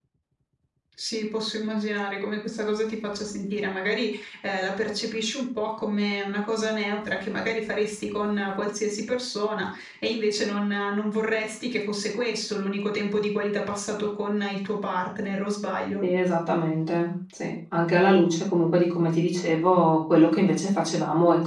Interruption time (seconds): none

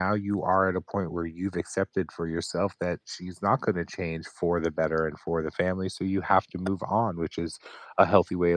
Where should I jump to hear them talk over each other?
none

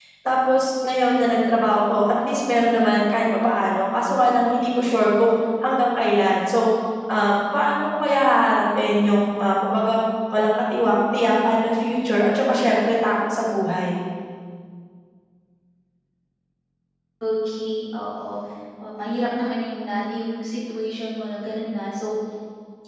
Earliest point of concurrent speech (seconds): none

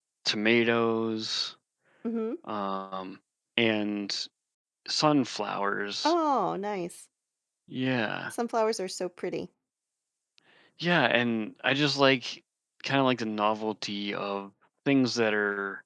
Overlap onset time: none

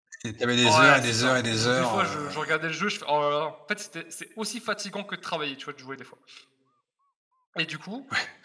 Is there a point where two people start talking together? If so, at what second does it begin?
0.6 s

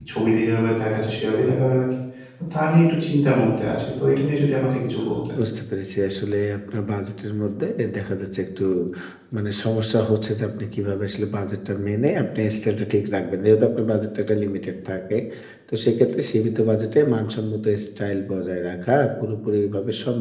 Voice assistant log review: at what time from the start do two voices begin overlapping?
none

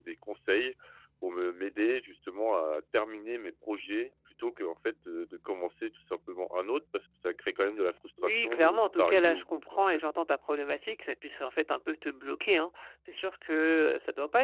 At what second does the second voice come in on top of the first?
8.2 s

